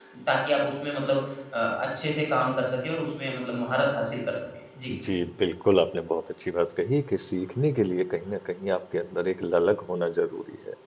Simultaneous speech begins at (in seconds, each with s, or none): none